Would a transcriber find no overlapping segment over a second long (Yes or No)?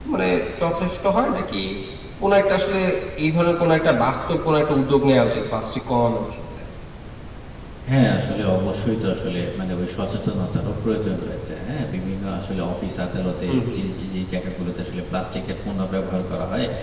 Yes